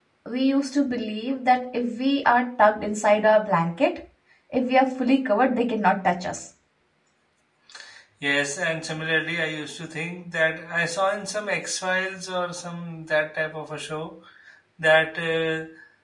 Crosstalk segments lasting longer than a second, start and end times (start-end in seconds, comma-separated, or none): none